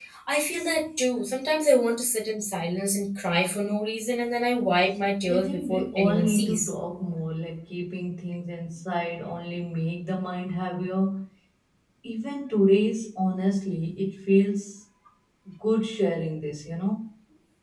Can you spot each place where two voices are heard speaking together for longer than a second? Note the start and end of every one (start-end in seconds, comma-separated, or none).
5.2-6.7